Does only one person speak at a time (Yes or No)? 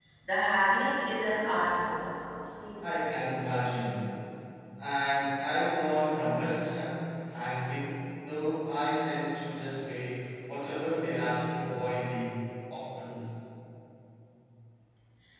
Yes